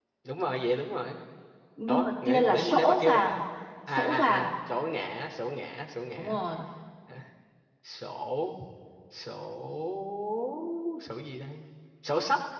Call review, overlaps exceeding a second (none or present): present